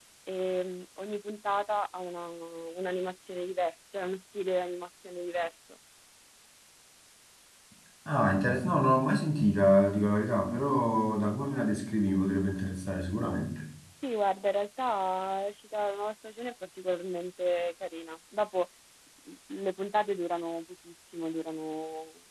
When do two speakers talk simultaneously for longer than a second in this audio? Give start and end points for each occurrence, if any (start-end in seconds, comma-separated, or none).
none